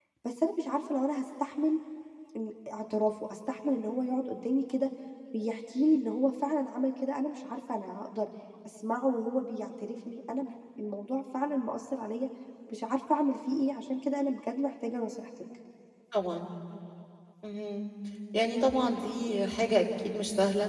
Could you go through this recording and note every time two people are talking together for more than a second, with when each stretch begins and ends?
none

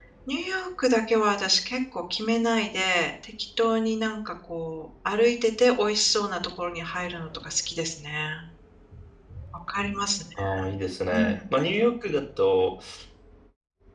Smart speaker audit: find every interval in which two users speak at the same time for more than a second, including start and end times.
none

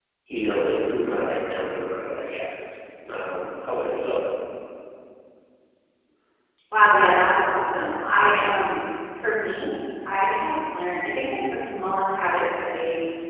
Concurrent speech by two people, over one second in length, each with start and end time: none

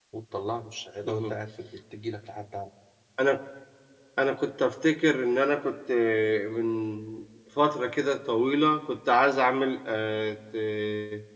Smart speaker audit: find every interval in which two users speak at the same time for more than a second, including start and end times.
none

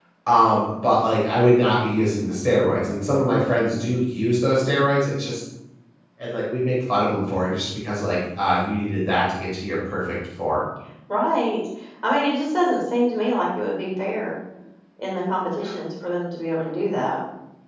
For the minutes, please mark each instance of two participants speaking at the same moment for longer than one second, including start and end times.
none

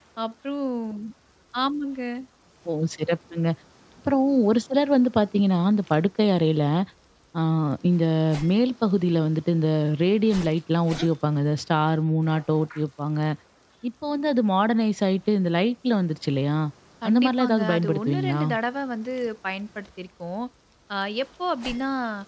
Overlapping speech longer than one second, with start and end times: 17.1-18.4

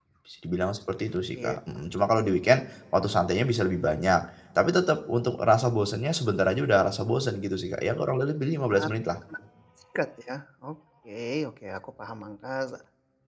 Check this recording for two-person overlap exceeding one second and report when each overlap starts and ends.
none

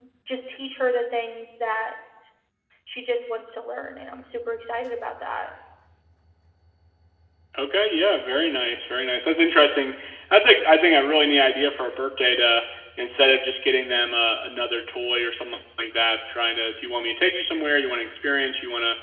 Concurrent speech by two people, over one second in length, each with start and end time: none

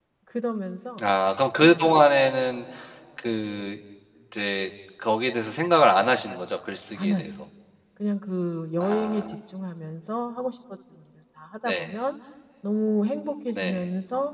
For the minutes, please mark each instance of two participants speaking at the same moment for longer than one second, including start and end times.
none

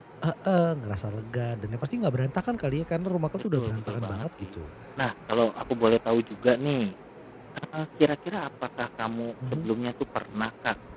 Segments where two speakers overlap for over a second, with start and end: 3.3-4.5

